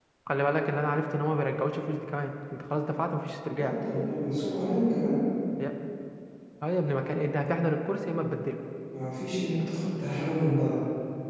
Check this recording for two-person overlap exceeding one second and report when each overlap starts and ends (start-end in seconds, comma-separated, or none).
none